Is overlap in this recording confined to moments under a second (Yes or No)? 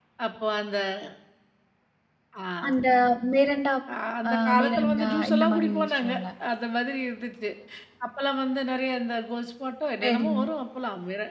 No